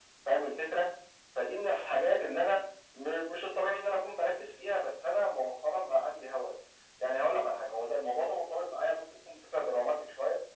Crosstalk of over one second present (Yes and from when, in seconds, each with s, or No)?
No